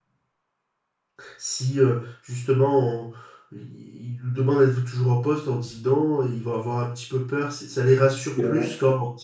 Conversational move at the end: listening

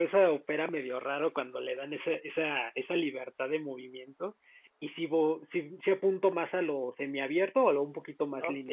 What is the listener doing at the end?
taking over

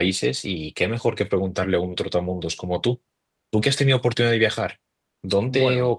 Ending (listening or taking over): listening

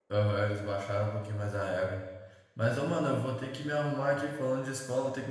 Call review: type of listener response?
listening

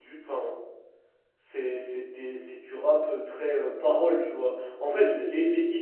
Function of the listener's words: listening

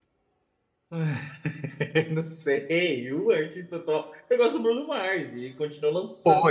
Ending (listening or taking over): listening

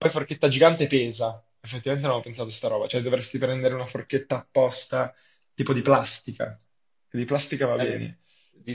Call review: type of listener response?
taking over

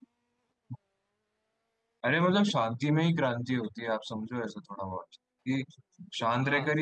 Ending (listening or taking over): listening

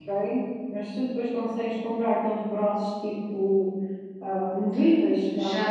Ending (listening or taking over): taking over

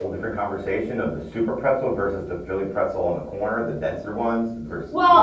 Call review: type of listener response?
taking over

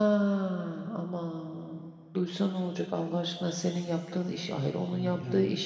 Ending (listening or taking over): listening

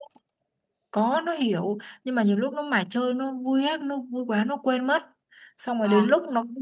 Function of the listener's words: listening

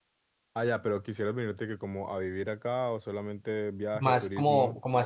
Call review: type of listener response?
taking over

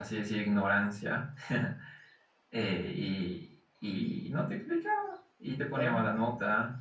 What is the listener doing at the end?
listening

